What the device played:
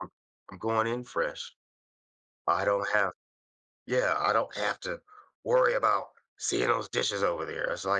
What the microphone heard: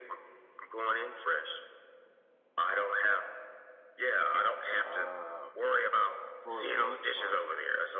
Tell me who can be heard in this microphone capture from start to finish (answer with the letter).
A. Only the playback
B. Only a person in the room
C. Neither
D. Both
D